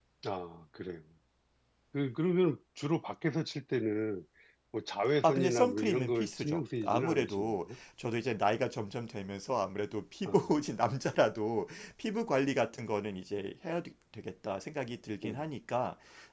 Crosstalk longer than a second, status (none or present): present